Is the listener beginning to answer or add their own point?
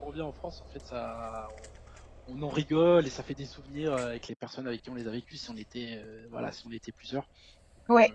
Yes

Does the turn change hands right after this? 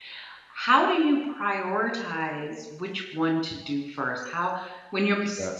No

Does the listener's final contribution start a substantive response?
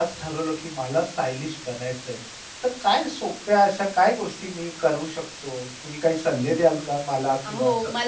Yes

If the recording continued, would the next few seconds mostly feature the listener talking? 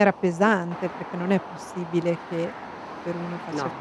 No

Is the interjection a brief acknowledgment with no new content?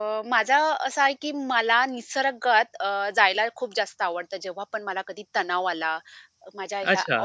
No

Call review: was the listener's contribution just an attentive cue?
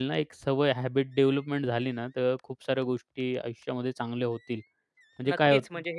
No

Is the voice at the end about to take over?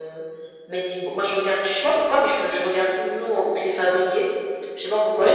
No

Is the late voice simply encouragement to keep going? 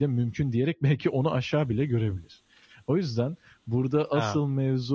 Yes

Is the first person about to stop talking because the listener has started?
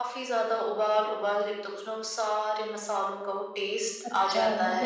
Yes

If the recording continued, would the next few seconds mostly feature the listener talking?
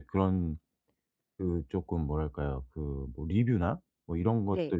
No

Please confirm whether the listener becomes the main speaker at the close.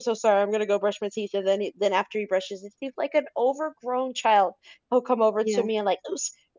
No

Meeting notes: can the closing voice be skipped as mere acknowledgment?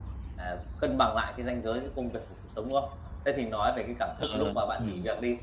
Yes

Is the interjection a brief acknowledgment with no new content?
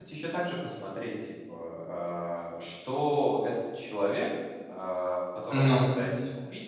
Yes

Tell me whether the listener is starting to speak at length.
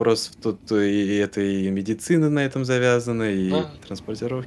No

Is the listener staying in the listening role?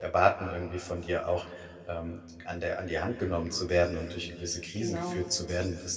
Yes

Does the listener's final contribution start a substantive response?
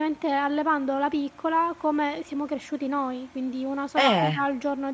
No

